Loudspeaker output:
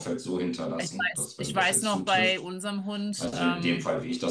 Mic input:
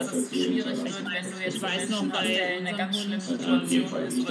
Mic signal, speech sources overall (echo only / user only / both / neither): both